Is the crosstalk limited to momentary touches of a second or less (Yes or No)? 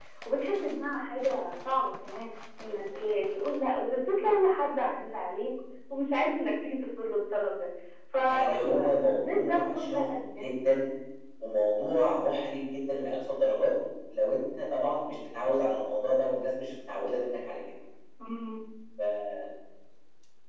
No